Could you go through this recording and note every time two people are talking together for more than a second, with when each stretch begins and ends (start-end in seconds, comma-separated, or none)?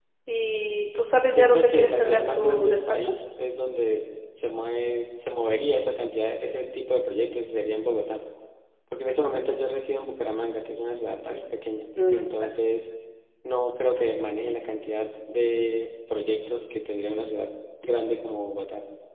1.3-3.1